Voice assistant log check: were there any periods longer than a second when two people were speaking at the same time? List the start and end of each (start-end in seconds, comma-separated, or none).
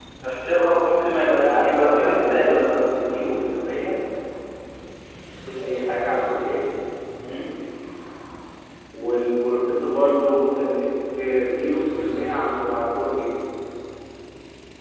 1.3-2.8